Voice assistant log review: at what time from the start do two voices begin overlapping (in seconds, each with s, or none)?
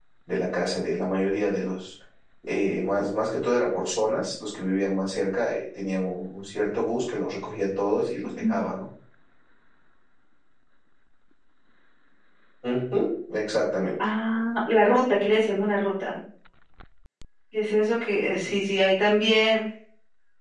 none